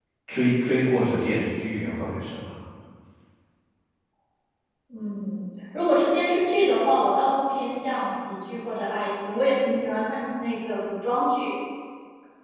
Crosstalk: none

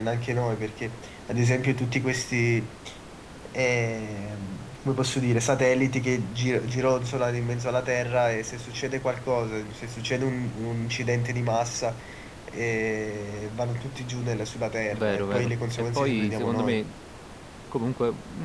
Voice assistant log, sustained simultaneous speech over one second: present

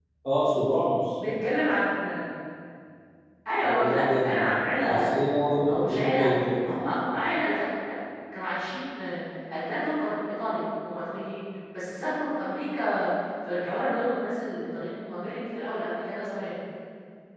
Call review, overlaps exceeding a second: present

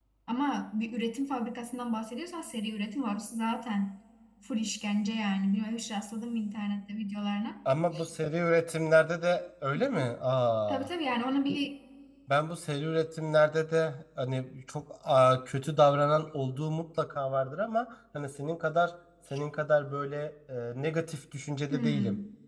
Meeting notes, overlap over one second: none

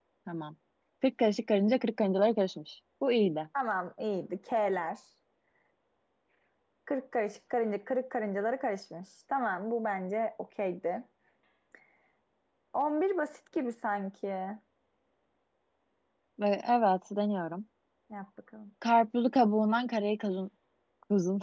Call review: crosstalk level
none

